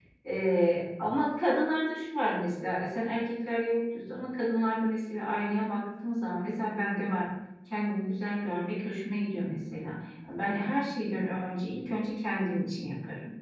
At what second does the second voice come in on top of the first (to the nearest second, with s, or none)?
none